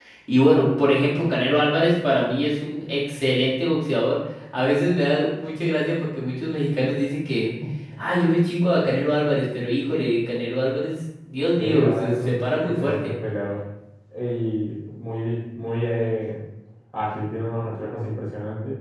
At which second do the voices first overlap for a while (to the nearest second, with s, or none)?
12 s